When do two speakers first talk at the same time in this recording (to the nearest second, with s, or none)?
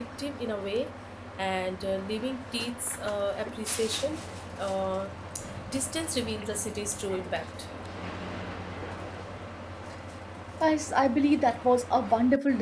none